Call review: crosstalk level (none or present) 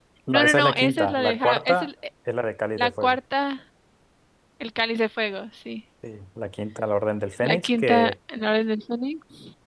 present